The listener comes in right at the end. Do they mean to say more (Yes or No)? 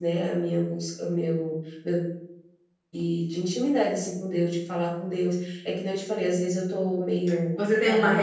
Yes